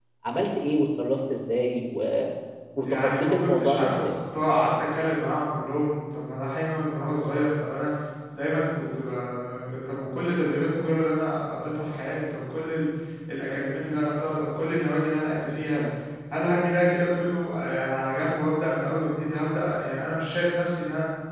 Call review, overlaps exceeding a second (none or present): present